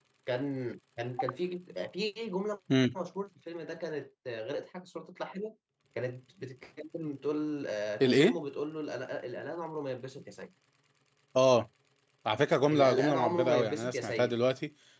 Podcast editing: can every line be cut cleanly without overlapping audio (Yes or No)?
No